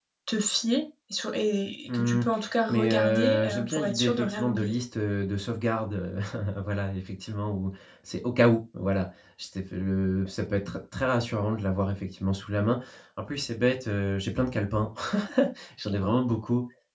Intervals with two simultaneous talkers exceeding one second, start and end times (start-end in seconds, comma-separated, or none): 2.7-4.7